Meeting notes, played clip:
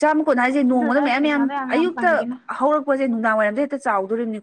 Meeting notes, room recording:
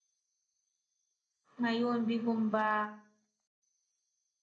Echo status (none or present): none